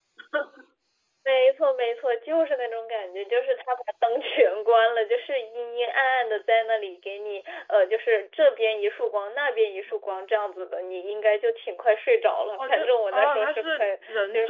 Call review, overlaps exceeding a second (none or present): present